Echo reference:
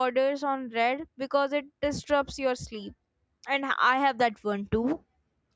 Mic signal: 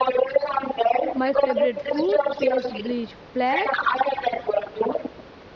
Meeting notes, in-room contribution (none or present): present